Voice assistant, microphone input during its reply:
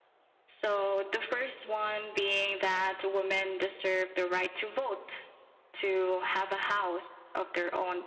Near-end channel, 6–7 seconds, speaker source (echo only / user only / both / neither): user only